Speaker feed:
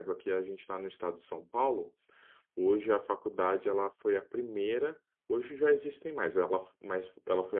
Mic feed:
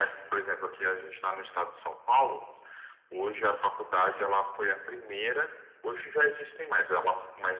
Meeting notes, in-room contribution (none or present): none